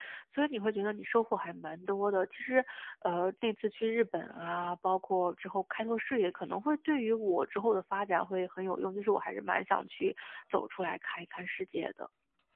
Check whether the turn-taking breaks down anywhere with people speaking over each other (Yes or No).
No